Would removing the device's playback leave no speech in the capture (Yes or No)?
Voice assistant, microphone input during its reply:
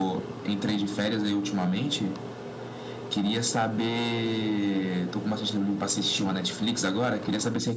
Yes